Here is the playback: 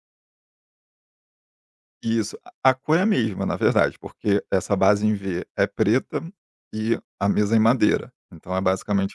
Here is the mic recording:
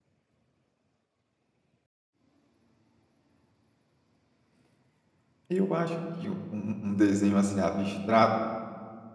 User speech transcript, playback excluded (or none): Eu acho que um um desenho, assim, abstrato,